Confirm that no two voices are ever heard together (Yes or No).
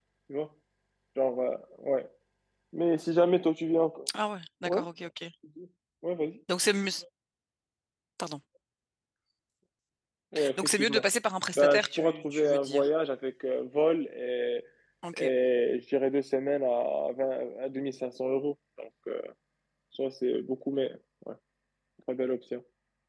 No